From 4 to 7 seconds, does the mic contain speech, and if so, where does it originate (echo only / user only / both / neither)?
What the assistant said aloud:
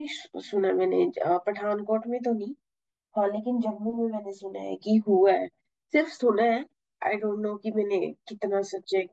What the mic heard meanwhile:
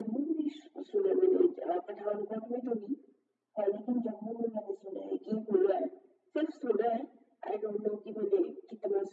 echo only